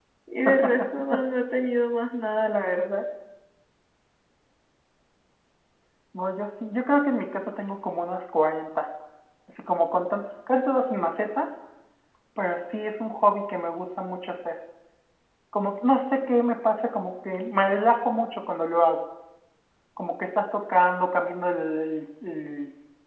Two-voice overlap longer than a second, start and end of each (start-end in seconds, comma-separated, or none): none